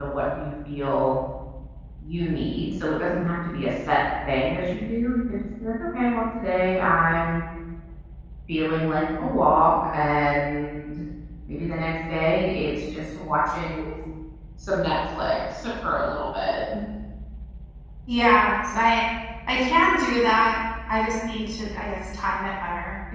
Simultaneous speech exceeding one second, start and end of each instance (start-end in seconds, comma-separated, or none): none